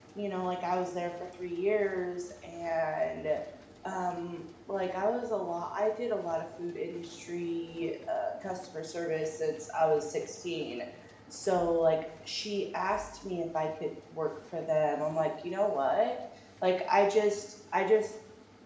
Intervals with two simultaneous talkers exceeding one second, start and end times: none

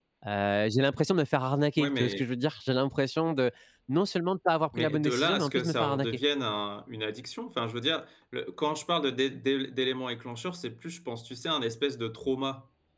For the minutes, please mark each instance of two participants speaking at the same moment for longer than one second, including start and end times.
4.7-6.1

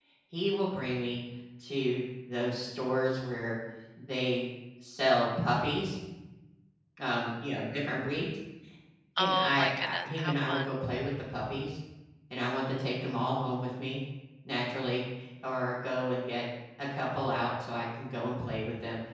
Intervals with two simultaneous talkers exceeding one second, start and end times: 9.2-10.7

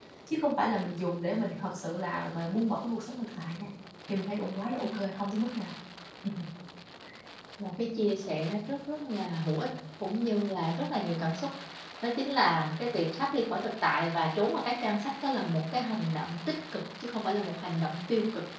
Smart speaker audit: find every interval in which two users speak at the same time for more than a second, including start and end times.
none

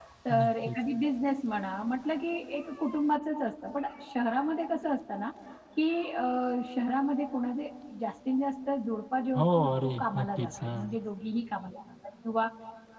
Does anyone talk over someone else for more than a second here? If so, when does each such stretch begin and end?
9.3-10.8

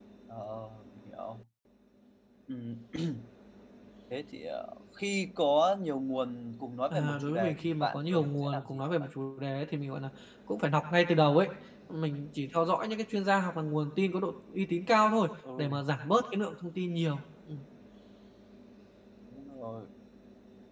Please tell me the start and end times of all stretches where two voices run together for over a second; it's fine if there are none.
6.9-9.1

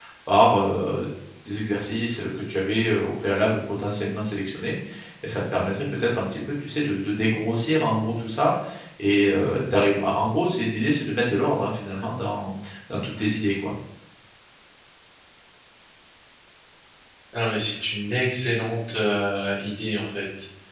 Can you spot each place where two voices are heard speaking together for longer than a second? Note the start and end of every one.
none

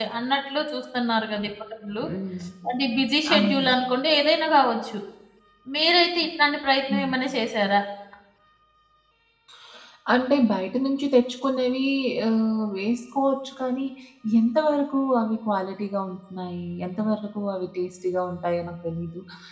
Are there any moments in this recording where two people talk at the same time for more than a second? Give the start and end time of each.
none

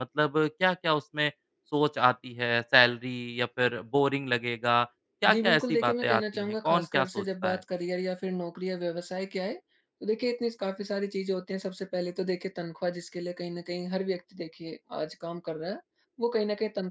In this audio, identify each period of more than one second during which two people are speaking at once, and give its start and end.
5.3-7.6

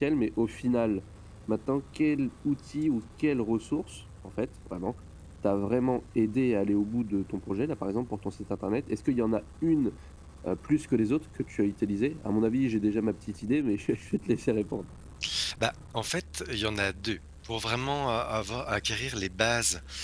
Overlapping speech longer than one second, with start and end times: none

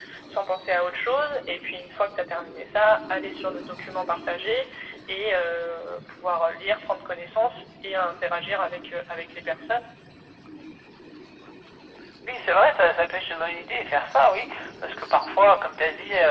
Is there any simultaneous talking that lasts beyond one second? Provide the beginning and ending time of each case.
none

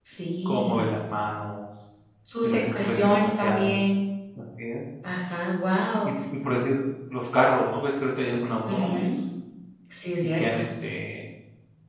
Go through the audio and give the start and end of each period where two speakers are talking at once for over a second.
2.4-3.8

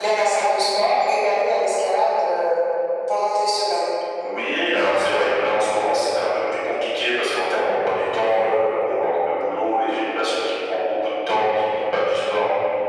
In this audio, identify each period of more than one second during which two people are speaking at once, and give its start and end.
none

